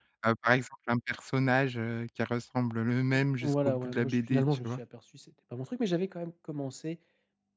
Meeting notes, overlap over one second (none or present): present